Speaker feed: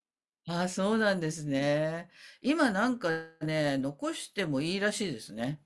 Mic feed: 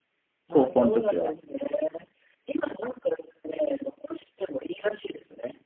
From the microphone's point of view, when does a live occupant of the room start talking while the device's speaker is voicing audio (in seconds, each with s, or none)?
0.5 s